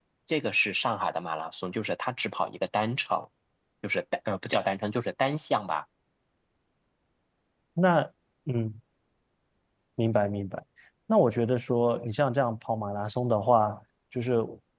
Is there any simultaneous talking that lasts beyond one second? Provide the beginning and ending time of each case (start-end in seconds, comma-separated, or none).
none